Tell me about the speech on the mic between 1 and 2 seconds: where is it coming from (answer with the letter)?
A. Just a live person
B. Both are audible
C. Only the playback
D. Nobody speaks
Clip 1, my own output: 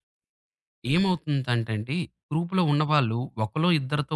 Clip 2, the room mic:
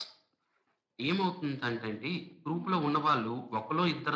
C